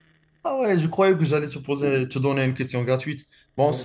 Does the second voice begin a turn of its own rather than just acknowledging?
No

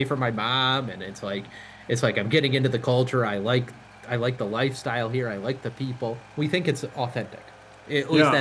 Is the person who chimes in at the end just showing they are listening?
No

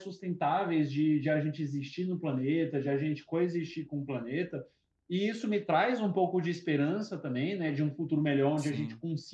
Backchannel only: Yes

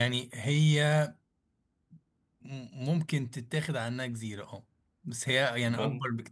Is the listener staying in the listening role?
Yes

